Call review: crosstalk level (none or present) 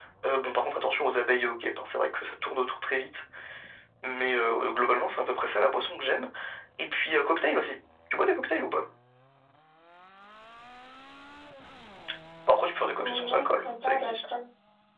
present